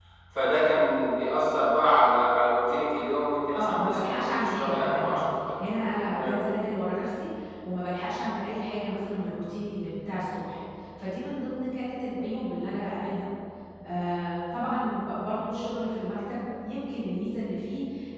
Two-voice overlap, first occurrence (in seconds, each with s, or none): 3.5 s